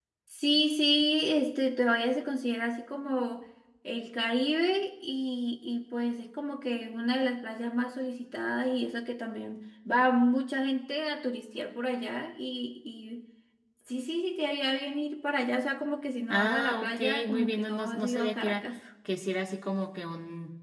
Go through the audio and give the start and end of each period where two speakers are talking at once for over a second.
16.3-18.6

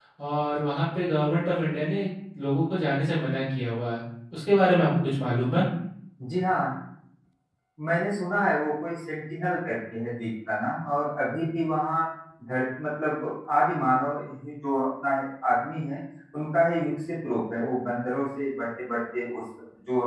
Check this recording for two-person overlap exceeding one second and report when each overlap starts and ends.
none

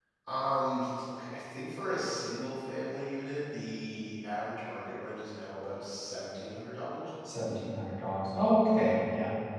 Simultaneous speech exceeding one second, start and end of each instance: none

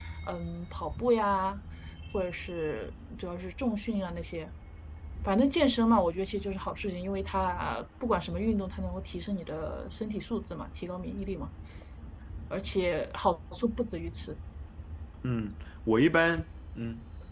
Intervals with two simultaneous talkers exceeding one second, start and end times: none

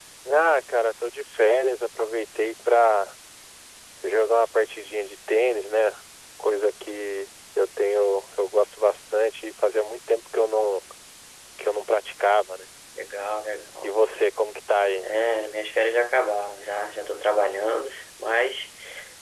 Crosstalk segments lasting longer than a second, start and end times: none

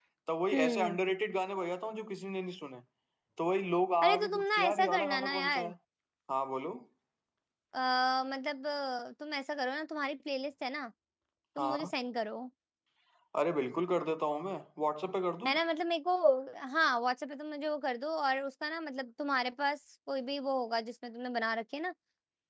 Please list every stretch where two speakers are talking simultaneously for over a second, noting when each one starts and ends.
4.0-5.7

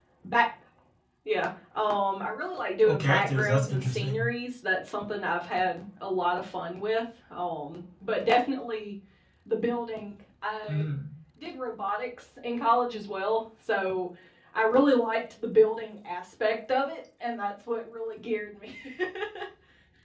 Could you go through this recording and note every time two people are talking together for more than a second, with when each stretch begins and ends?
2.8-4.2

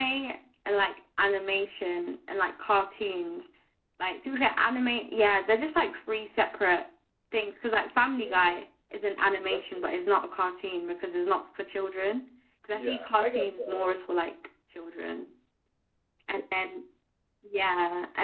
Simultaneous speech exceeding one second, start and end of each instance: 12.7-14.0

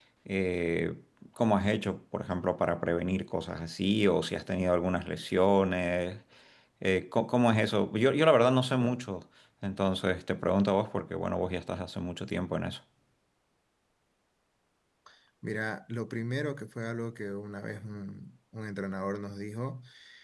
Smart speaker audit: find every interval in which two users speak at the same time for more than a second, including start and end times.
none

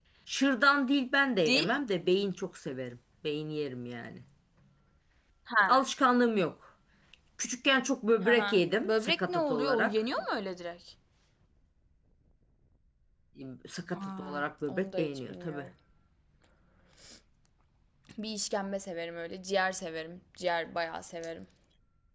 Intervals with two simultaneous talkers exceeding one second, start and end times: 8.2-10.0, 14.0-15.7

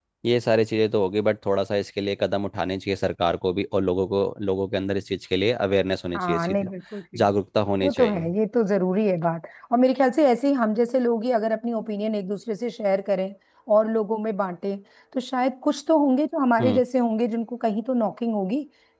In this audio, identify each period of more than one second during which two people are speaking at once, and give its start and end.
none

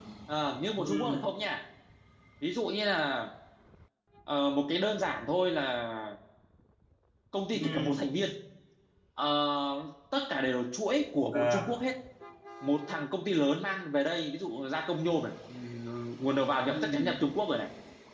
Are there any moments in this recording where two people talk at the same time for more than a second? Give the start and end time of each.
none

